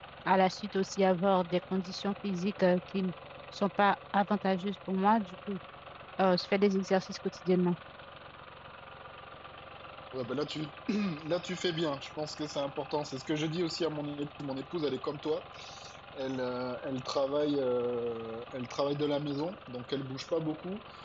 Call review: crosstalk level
none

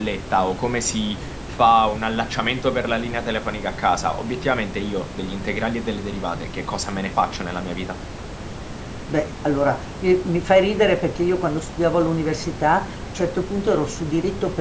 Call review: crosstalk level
none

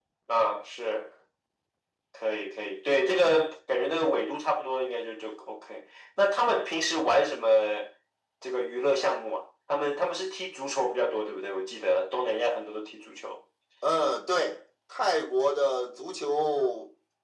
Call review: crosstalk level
none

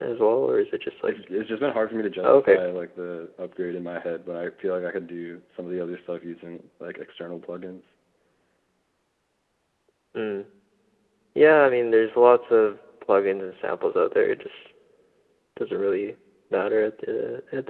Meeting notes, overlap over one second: none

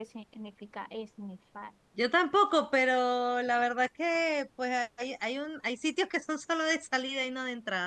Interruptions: none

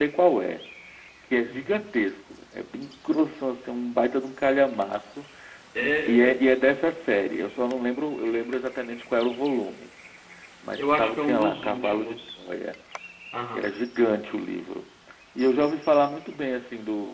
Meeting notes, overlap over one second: present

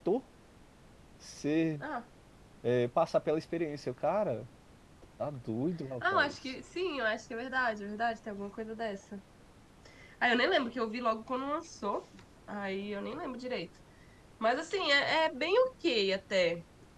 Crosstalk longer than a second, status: none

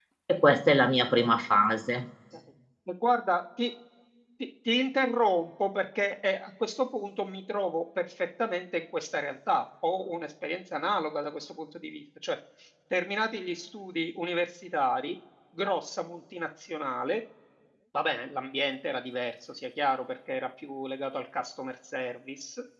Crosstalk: none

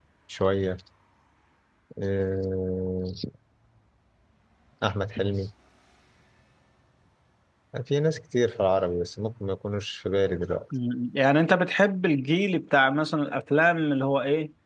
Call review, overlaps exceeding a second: none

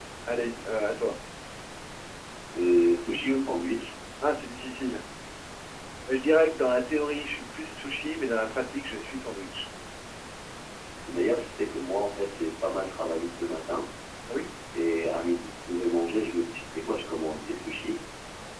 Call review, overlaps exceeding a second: none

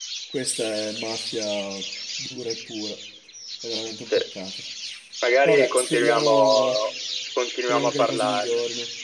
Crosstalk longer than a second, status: present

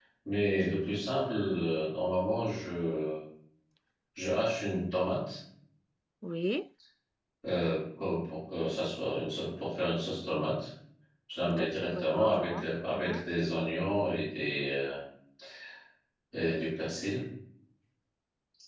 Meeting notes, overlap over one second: present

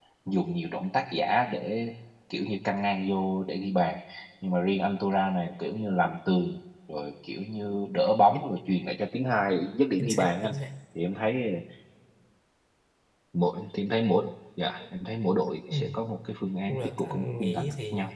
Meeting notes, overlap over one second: present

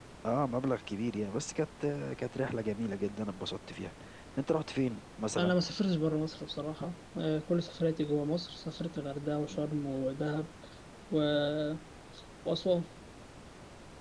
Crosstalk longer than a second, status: none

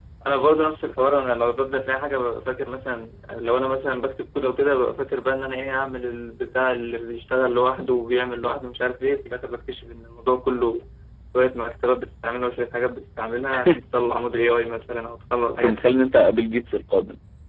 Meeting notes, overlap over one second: none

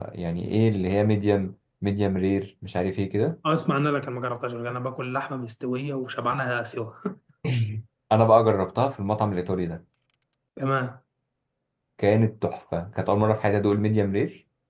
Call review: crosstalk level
none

